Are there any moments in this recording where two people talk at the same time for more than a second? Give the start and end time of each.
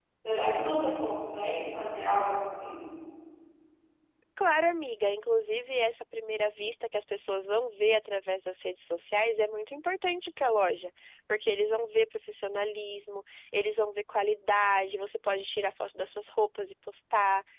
none

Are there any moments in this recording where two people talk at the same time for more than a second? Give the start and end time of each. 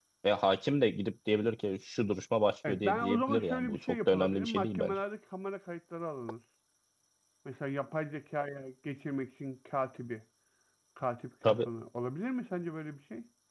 2.7-5.0

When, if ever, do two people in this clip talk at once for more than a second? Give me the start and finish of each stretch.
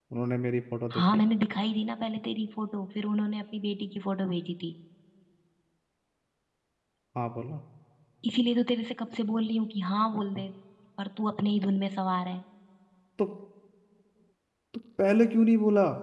none

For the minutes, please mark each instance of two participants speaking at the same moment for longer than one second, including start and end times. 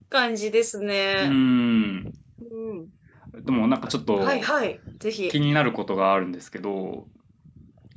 none

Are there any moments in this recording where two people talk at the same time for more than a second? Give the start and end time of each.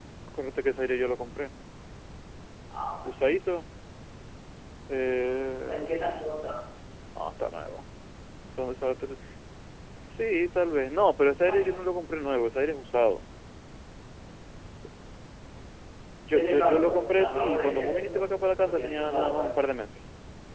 16.3-19.5

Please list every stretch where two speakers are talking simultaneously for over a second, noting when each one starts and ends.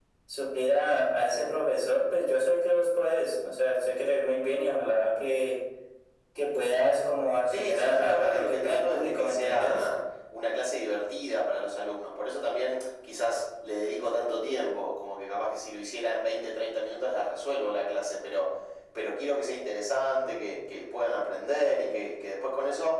7.5-9.9

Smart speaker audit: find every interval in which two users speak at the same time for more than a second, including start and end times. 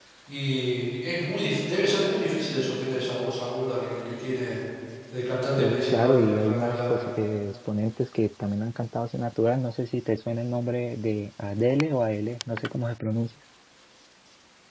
5.6-7.1

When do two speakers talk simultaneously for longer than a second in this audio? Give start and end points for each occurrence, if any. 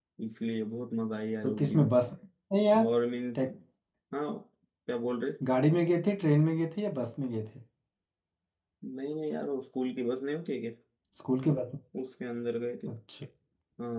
none

